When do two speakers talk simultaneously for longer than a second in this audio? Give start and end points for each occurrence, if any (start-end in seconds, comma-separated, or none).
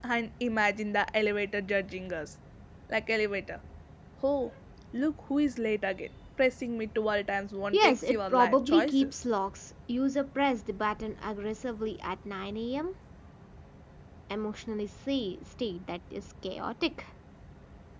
7.7-9.1